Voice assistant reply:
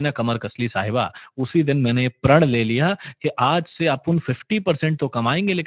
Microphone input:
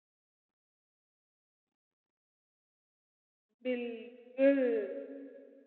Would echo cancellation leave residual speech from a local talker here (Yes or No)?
Yes